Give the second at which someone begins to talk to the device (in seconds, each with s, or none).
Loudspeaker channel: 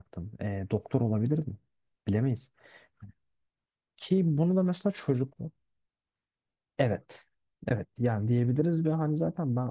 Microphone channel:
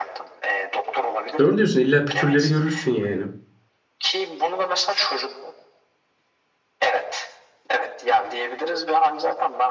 1.4 s